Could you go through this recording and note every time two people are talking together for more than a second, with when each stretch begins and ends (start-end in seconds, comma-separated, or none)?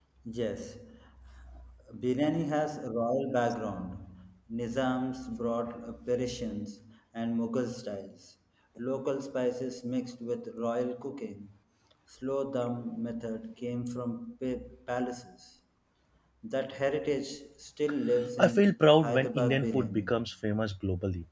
18.4-20.1